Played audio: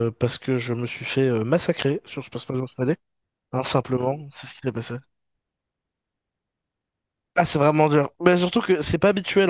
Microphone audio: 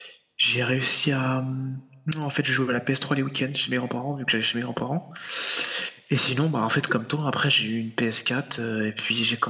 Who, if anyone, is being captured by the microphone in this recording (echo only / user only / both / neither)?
user only